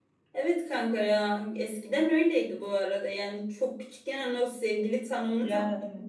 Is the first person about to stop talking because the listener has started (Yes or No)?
No